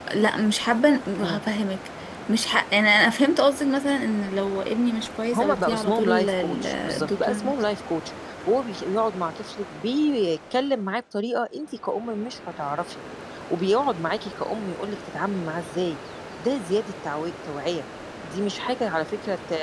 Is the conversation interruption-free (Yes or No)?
No